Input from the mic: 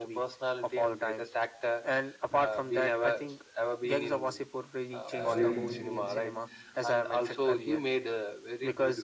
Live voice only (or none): uh, very